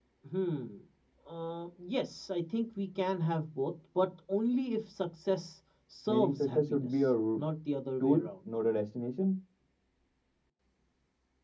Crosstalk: present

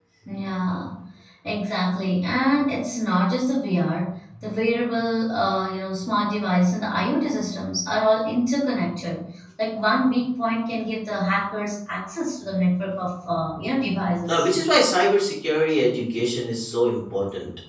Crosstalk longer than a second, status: none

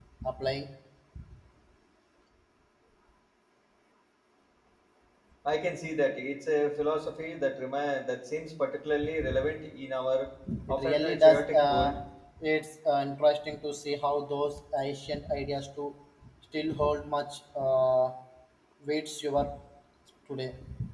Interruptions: present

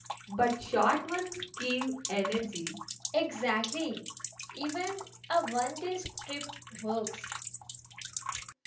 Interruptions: none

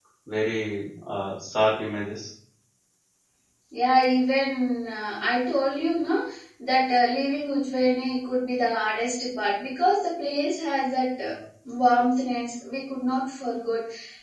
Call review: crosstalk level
none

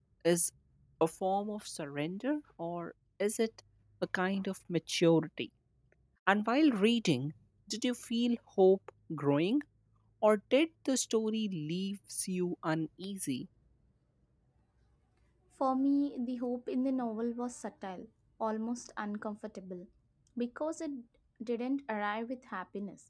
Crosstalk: none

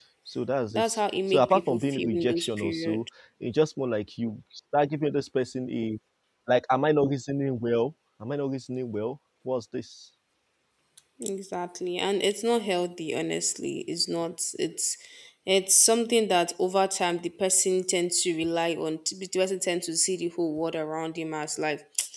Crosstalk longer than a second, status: present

